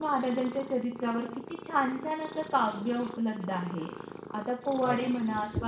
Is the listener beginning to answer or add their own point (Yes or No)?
No